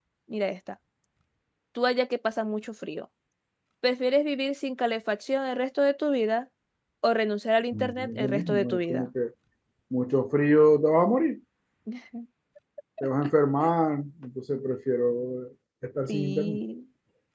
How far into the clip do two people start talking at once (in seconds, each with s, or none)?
7.7 s